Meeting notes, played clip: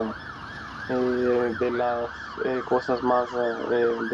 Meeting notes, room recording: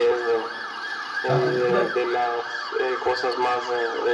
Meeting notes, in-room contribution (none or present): present